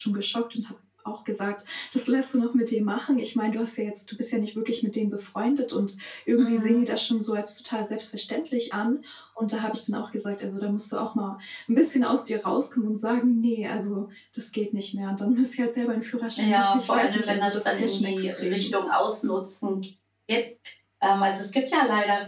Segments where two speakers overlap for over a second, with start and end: 16.4-18.7

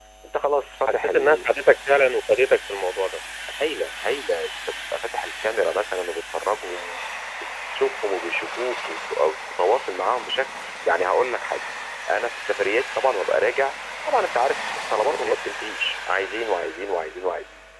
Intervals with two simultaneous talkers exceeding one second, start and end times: none

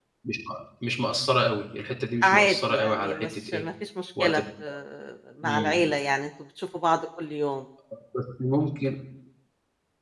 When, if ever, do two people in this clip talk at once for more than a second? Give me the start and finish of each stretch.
2.2-3.6

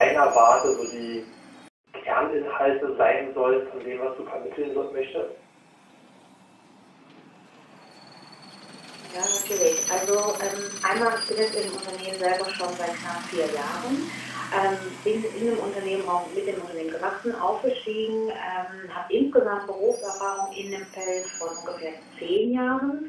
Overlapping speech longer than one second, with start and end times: none

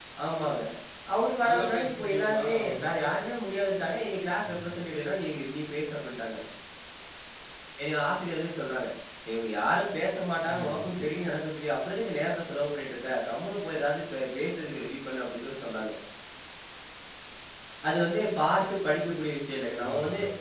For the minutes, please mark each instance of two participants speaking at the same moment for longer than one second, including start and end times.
1.5-2.9

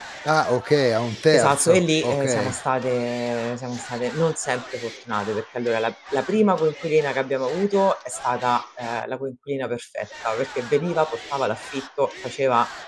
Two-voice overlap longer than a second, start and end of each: 1.3-2.5

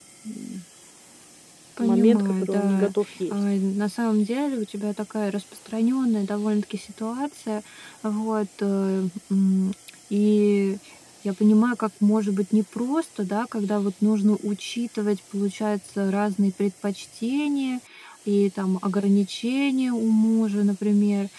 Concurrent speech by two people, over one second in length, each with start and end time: 1.8-3.3

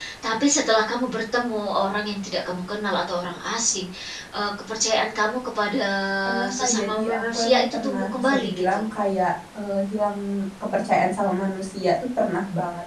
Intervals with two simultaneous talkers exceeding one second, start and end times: 6.5-8.9

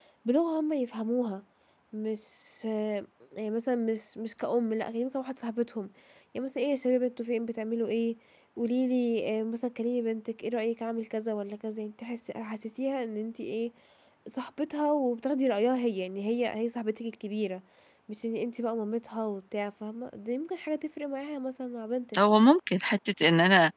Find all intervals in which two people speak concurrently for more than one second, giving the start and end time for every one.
none

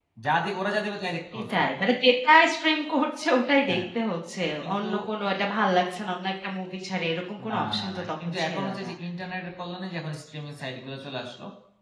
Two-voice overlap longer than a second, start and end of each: 7.5-8.9

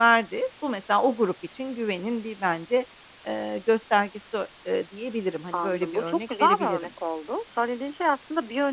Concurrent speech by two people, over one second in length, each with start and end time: 5.5-6.9

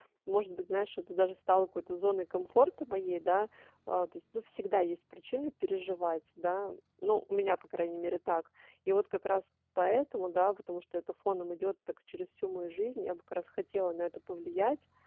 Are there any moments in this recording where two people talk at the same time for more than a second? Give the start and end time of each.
none

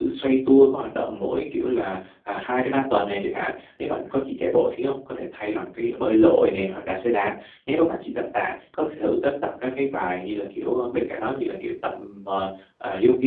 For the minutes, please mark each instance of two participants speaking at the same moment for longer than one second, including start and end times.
none

